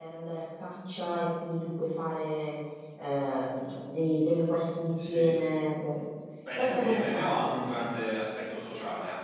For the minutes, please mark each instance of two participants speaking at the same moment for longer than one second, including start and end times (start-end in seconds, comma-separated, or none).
6.6-7.8